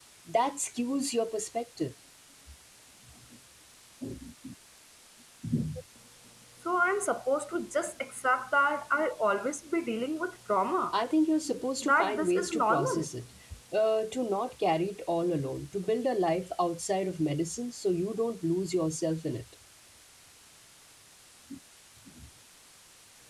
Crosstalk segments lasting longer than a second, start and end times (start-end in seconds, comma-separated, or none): 11.8-13.1